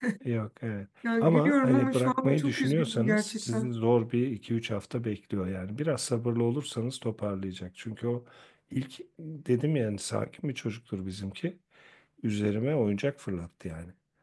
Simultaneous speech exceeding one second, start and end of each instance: 1.2-3.7

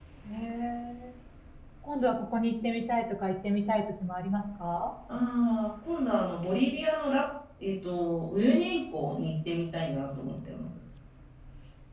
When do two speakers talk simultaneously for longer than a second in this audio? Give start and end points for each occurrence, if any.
none

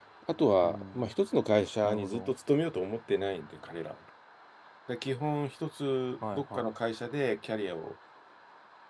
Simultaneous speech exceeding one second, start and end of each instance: none

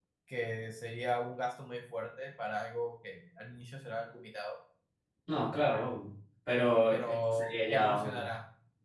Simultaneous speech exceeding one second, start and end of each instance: 6.9-8.2

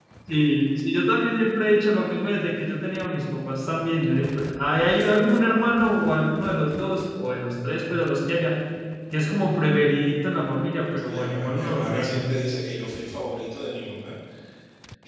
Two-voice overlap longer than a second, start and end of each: 11.0-12.3

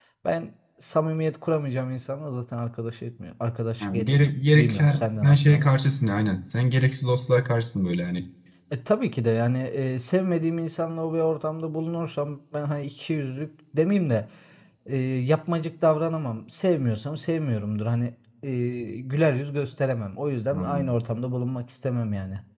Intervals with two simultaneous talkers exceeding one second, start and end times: 3.8-5.7

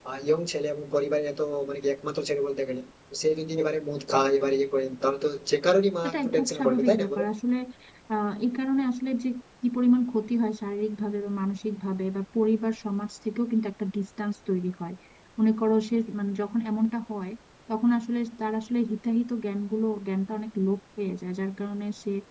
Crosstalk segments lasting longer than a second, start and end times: 6.0-7.2

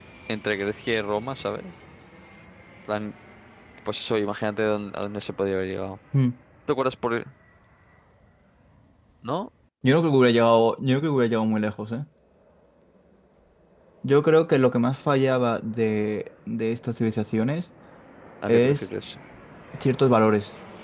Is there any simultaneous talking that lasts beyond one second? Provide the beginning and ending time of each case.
none

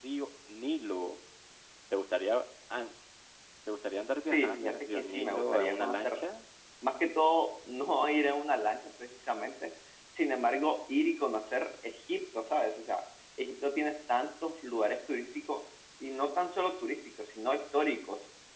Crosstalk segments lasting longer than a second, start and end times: 4.3-6.2

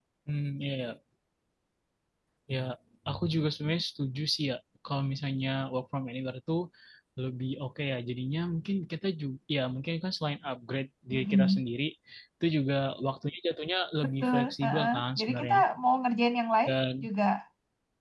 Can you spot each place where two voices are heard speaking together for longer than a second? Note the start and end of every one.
14.0-15.6

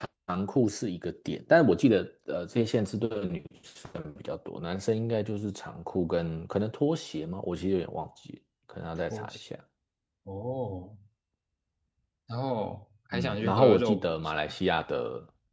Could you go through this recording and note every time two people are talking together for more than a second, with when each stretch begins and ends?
13.1-14.6

